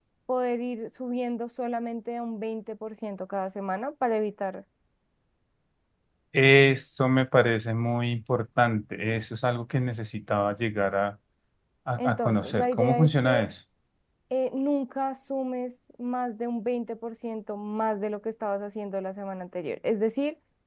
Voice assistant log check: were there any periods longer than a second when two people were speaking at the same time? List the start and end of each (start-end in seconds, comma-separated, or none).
12.0-13.5